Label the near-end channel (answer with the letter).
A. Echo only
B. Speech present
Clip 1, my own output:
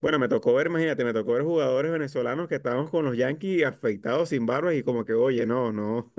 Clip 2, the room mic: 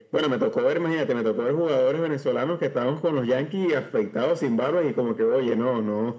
A